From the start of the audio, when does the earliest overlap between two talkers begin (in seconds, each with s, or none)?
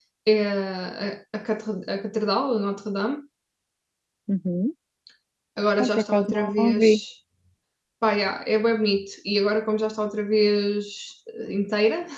5.8 s